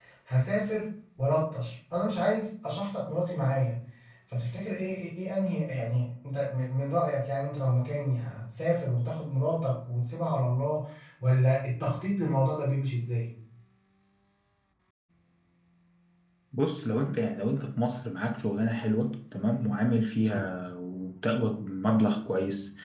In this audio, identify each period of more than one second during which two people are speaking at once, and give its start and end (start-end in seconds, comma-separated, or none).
none